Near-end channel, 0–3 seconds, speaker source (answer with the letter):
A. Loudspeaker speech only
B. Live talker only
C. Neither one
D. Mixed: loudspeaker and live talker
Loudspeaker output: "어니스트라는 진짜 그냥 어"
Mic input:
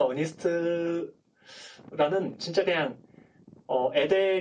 A